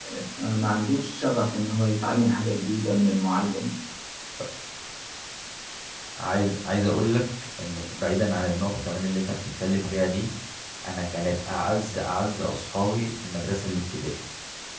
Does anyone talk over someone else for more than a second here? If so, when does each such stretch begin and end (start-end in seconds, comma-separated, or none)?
none